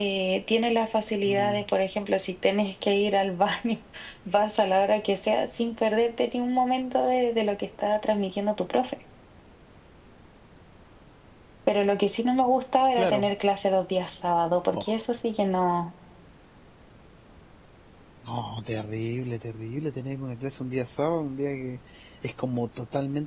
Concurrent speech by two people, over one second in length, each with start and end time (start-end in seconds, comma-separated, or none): none